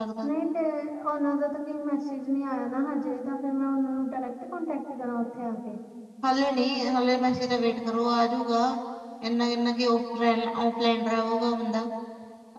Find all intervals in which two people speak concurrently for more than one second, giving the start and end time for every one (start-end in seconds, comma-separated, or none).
none